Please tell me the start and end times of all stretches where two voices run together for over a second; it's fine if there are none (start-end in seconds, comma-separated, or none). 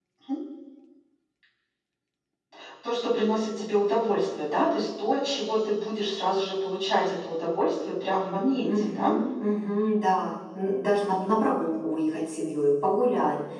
none